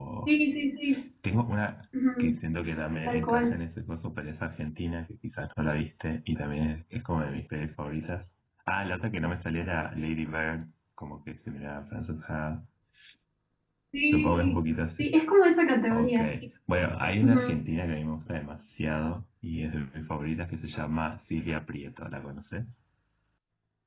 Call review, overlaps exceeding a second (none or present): none